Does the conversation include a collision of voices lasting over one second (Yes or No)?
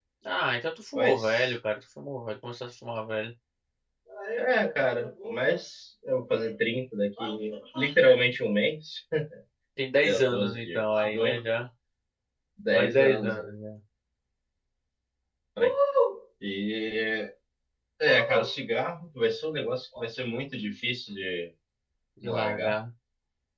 Yes